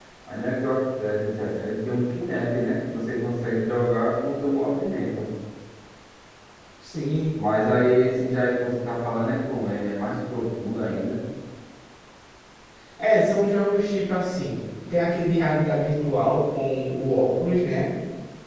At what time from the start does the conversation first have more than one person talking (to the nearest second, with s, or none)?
none